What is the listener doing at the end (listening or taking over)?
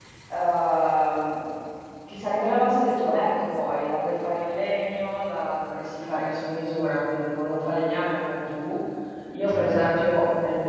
listening